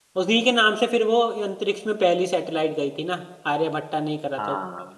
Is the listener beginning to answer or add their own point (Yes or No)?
Yes